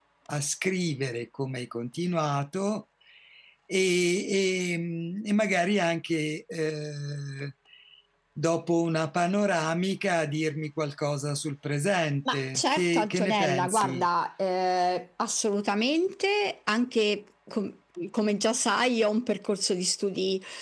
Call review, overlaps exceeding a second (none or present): present